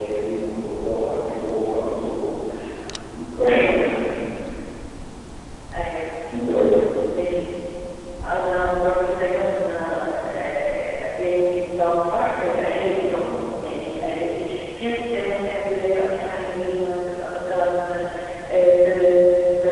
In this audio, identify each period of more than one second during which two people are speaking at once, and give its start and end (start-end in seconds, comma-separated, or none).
none